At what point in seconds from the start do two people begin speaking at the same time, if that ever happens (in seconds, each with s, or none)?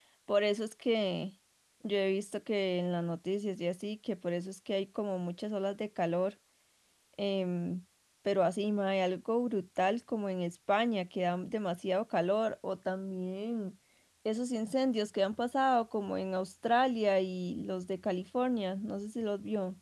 none